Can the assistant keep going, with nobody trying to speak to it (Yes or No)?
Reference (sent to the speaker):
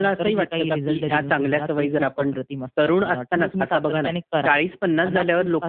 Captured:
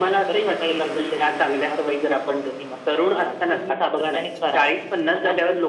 Yes